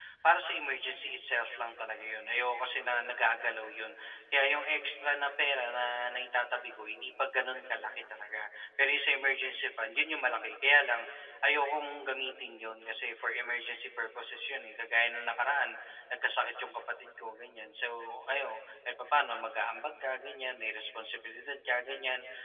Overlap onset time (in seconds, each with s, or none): none